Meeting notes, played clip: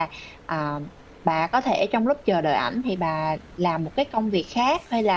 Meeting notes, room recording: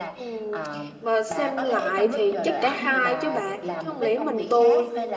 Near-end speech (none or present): present